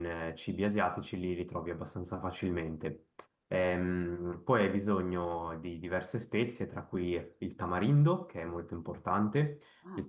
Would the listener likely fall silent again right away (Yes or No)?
Yes